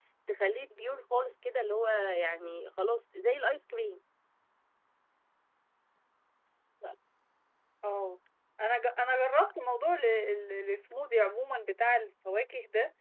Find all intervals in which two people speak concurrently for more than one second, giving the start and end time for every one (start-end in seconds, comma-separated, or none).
none